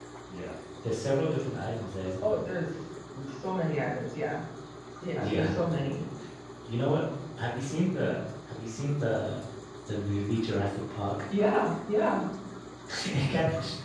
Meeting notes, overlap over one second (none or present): none